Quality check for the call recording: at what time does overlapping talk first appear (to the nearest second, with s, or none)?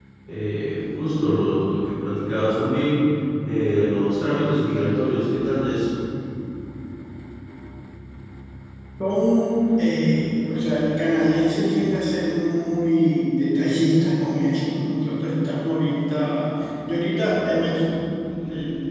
none